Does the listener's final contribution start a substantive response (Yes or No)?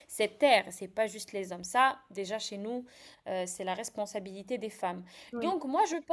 No